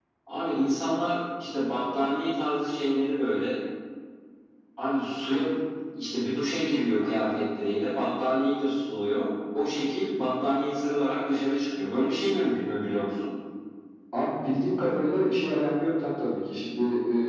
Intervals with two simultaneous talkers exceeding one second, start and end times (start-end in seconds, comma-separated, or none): none